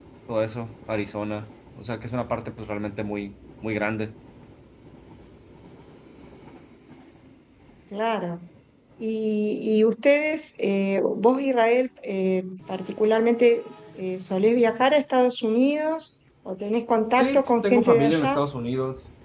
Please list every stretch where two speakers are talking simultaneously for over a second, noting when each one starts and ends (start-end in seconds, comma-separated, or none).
17.1-18.4